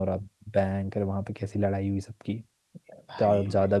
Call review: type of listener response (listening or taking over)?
listening